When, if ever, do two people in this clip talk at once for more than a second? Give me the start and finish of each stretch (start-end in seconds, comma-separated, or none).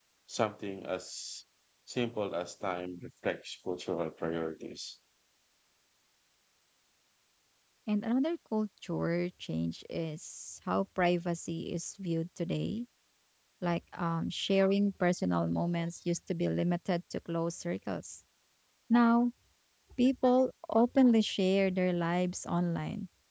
none